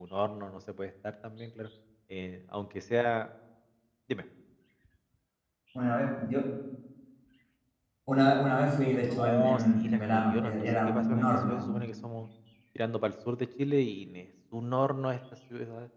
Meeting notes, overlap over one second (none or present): present